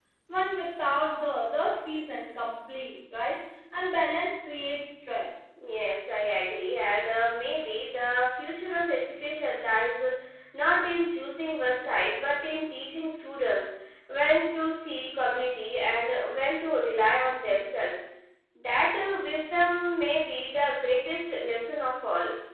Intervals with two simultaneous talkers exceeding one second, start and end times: none

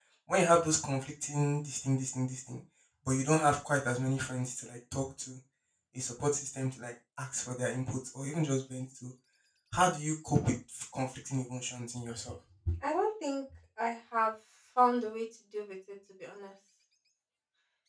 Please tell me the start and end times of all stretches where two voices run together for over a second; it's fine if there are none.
none

